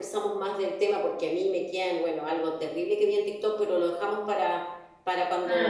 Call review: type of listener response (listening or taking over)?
listening